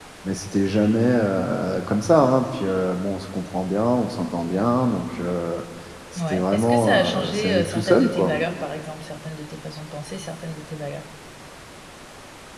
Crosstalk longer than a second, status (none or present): present